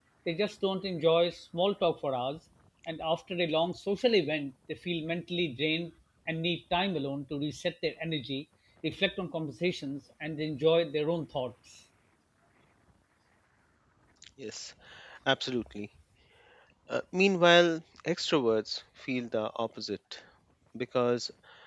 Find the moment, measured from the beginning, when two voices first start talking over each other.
none

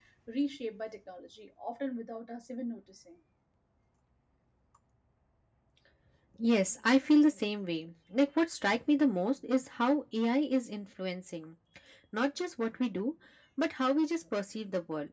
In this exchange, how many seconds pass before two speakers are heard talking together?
none

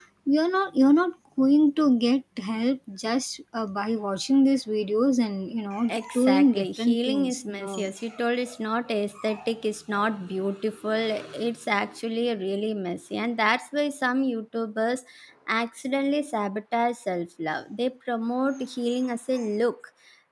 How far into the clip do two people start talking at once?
5.7 s

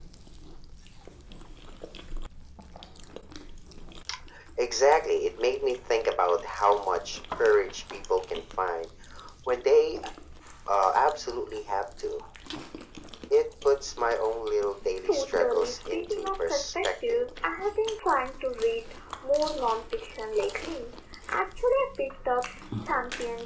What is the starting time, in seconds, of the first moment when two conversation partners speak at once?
15.1 s

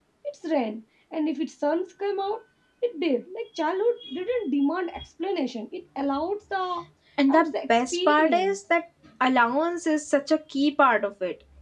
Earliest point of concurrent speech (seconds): 7.3 s

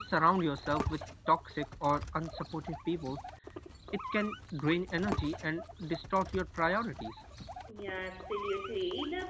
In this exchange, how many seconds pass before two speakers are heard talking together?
none

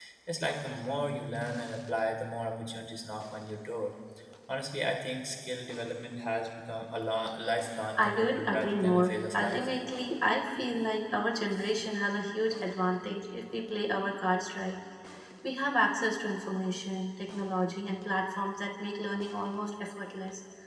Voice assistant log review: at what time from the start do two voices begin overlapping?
8.0 s

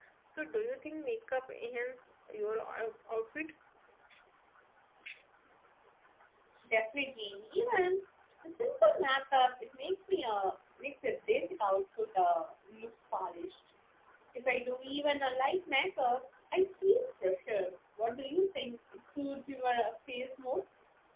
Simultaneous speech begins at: none

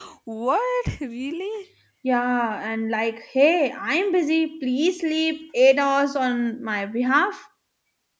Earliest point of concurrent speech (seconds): none

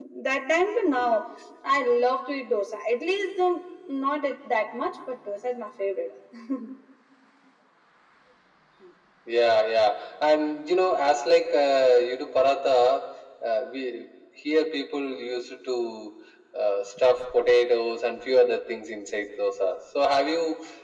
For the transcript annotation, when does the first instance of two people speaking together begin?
none

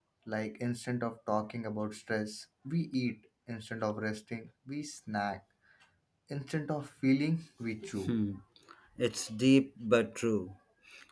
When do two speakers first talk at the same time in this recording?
none

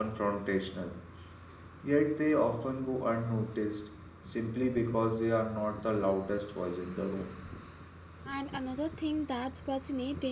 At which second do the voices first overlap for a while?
none

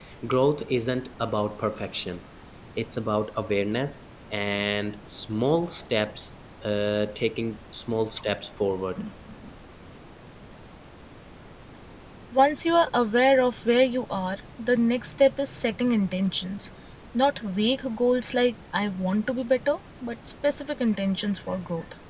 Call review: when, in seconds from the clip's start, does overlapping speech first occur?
none

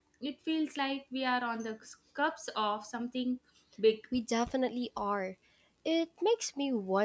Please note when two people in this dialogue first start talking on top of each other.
none

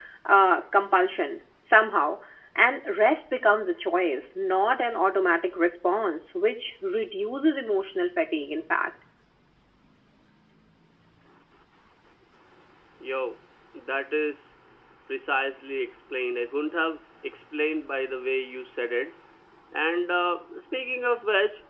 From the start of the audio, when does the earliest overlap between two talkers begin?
none

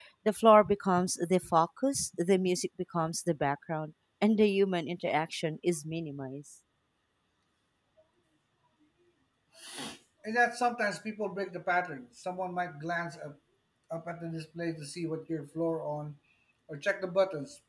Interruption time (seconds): none

